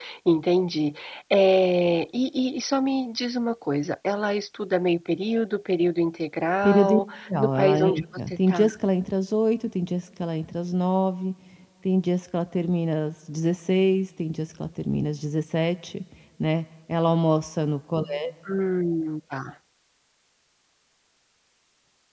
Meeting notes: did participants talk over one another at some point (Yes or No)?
Yes